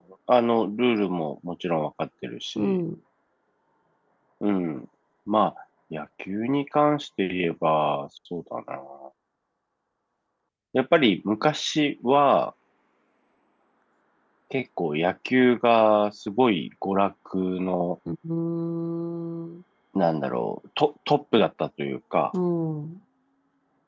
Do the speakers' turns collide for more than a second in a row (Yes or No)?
No